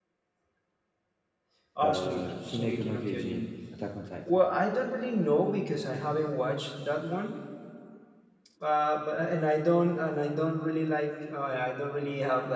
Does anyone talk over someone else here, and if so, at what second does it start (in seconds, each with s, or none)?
1.8 s